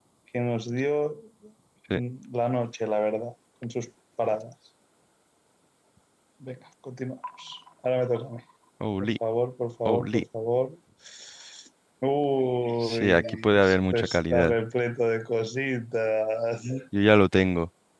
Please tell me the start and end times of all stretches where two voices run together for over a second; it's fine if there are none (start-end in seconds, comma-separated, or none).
12.8-14.6